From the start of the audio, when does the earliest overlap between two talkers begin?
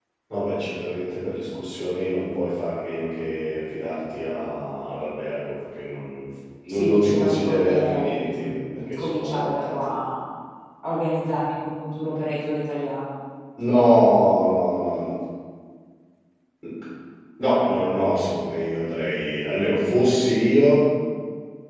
6.7 s

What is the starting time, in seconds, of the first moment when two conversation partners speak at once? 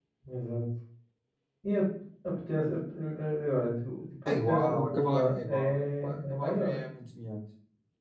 4.2 s

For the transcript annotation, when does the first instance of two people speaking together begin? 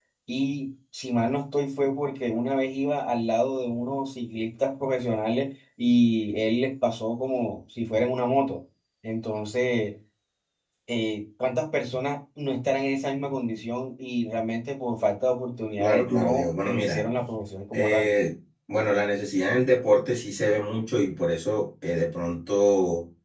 15.8 s

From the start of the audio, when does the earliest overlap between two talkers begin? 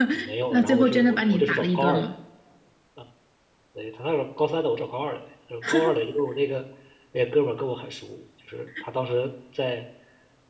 0.5 s

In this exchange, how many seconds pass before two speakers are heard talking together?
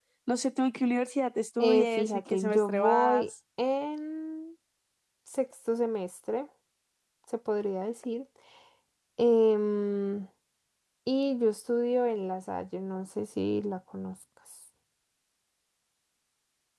1.6 s

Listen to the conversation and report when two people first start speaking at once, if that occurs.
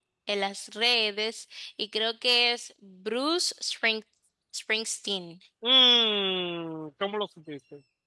none

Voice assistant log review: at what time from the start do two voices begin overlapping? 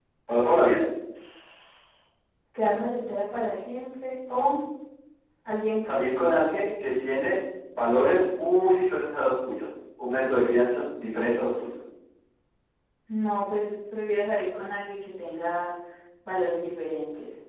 none

